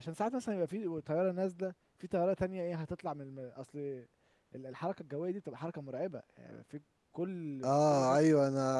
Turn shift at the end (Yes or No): Yes